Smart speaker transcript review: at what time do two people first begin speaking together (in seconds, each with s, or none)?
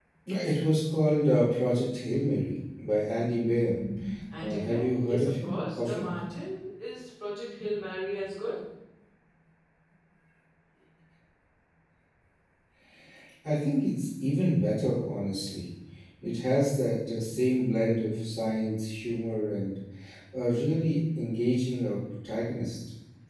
4.4 s